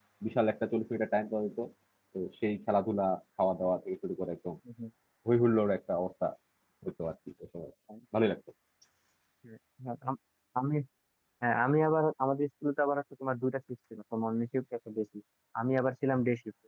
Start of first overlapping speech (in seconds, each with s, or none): none